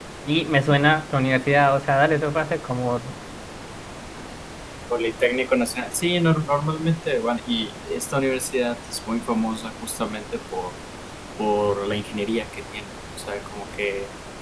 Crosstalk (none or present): none